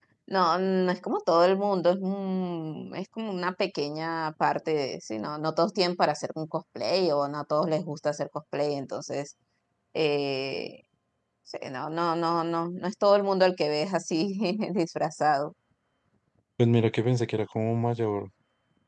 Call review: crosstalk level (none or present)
none